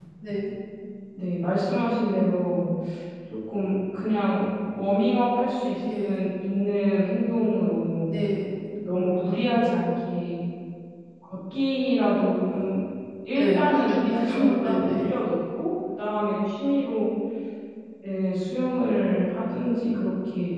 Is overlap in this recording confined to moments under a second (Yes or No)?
No